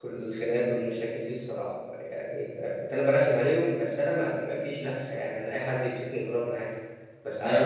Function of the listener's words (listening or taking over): taking over